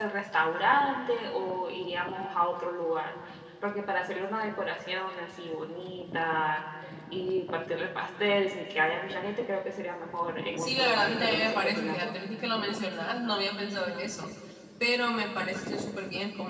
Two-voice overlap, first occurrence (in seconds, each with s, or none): 10.6 s